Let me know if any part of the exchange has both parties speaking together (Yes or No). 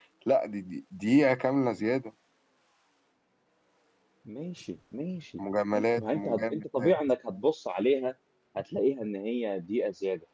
Yes